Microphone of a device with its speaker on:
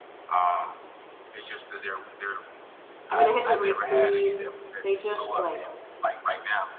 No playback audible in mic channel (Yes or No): No